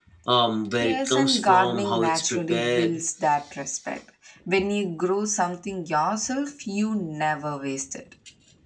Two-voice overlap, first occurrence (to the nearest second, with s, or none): 1 s